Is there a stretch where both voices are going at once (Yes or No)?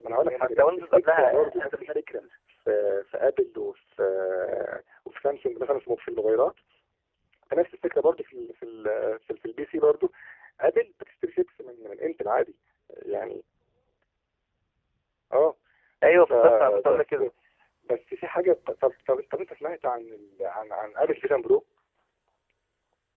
Yes